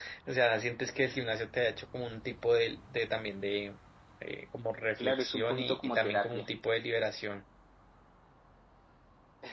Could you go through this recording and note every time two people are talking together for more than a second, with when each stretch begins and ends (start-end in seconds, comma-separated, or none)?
5.0-6.5